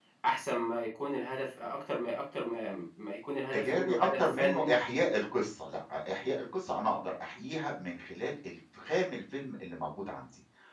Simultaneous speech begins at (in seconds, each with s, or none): 3.5 s